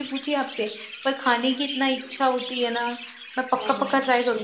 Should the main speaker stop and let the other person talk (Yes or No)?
Yes